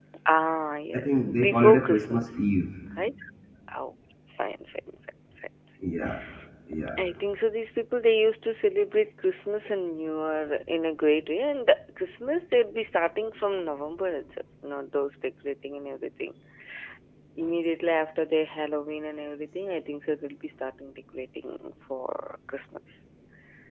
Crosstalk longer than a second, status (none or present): present